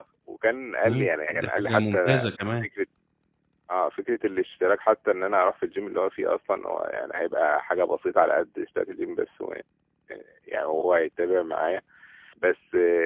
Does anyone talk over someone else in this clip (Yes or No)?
Yes